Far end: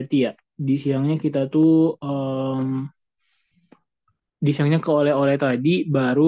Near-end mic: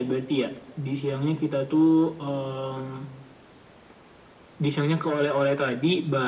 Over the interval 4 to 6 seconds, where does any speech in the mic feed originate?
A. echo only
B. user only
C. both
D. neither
A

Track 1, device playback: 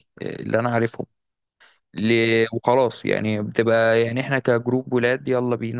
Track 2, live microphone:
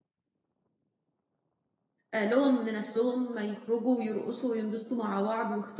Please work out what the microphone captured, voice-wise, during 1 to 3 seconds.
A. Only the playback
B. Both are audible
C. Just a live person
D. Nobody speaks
C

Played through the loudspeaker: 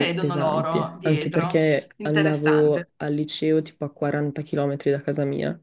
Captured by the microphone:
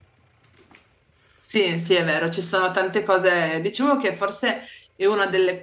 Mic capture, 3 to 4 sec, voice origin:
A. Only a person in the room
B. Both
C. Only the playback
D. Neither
A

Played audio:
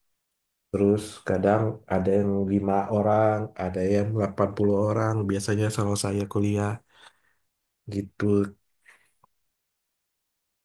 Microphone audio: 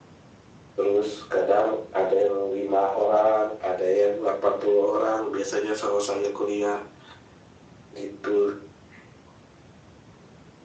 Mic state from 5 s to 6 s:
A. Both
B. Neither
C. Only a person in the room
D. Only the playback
D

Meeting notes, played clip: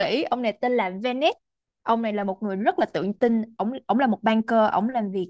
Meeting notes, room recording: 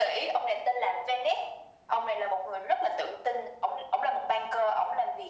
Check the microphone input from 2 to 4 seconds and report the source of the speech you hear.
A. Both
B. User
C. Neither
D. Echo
D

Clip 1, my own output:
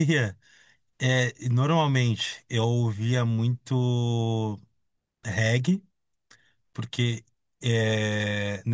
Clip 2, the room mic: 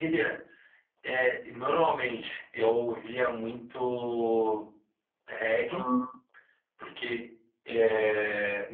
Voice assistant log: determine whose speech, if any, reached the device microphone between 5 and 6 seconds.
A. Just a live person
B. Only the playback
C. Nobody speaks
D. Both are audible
D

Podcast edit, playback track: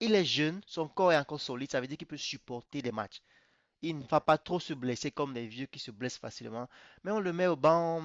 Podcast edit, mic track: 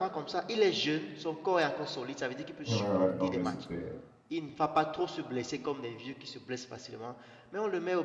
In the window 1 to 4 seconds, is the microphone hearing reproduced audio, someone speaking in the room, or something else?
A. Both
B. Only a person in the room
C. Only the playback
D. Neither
A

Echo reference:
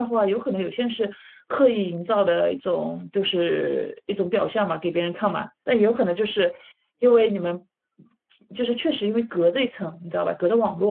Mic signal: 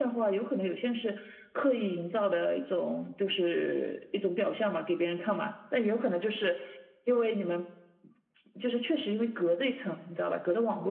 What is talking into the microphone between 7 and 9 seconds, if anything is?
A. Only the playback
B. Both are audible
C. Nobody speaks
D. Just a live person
A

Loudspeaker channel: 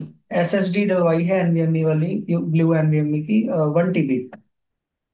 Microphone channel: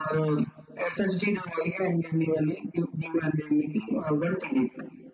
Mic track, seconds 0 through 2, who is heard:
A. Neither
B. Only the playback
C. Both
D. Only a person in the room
B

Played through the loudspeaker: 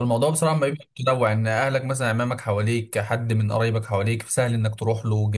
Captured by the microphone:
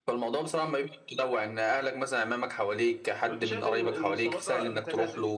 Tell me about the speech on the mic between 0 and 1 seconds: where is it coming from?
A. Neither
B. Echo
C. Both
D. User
B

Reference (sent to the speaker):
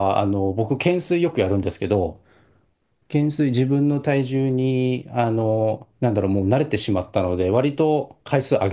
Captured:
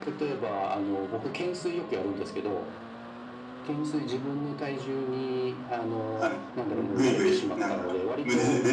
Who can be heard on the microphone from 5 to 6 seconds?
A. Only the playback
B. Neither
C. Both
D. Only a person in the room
A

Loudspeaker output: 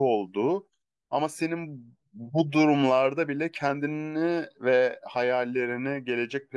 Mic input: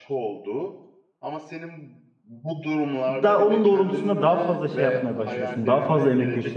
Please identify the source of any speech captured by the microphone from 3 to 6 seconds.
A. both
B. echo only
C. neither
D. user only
A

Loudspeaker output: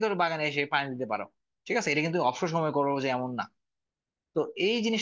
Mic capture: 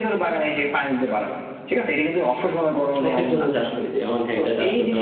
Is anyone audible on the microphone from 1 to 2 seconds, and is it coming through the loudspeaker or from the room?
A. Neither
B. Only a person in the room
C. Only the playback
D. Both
C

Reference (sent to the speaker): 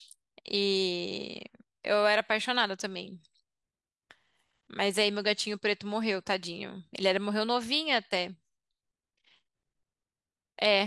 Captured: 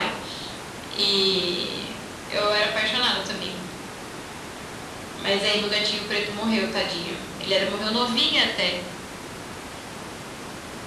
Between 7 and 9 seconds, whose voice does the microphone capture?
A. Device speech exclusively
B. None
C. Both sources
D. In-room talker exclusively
A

